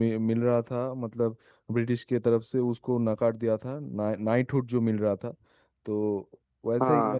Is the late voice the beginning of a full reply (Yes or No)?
No